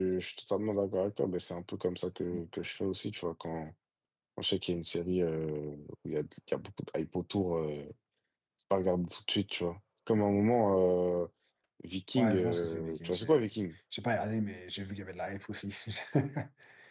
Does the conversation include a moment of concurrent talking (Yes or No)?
Yes